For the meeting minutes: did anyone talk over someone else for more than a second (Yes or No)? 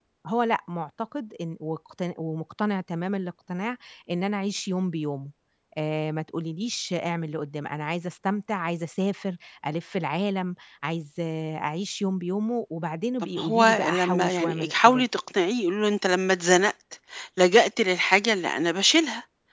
Yes